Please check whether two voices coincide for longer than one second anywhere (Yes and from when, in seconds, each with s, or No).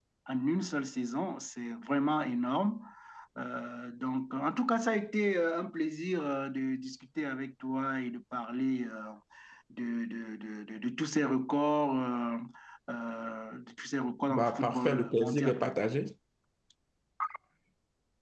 Yes, from 14.3 s